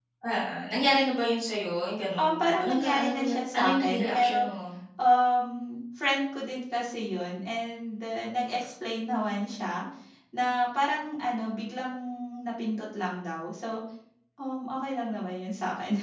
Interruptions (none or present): present